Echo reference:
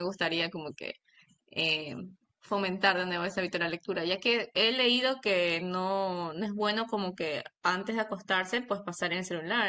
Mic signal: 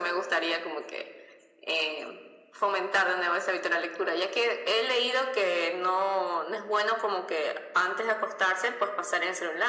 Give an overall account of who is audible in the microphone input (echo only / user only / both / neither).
echo only